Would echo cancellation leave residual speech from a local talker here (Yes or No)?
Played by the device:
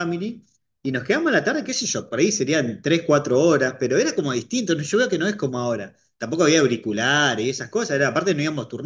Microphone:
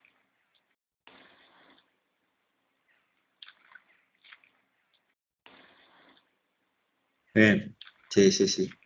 Yes